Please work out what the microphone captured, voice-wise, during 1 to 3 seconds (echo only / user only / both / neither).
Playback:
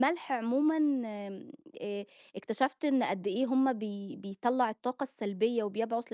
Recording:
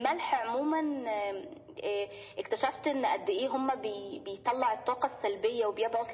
echo only